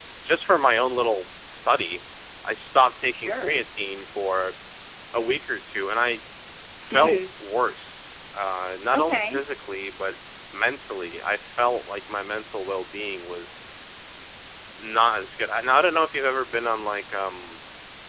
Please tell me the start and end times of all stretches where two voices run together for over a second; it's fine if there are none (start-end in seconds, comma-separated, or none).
none